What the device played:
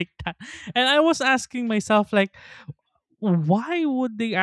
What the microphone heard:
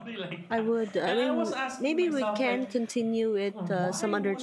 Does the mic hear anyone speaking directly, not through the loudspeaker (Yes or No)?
Yes